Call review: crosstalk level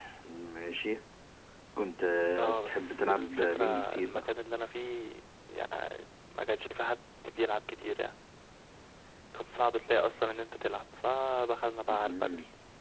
present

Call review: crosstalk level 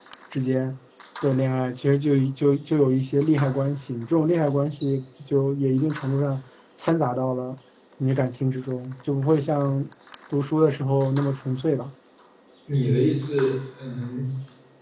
none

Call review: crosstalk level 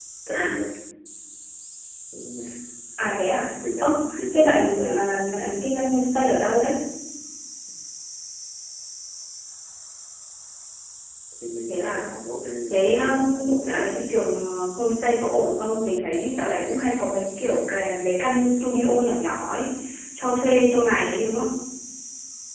present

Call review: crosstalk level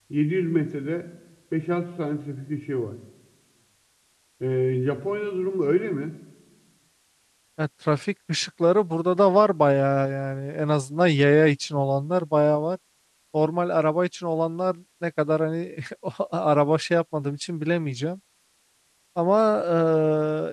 none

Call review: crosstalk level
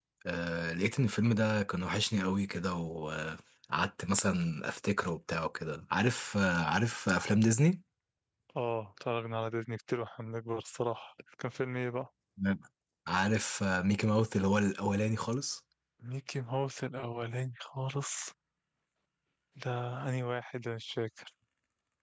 none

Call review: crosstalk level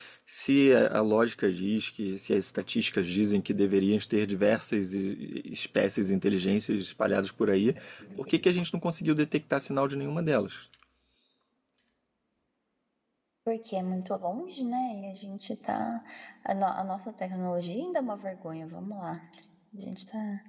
none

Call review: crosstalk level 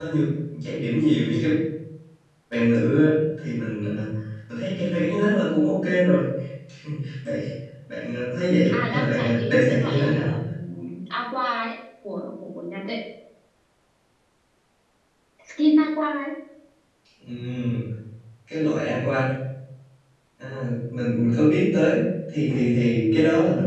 present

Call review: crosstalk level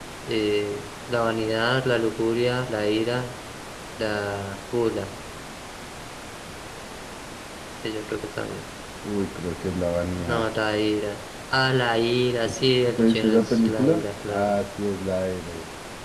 present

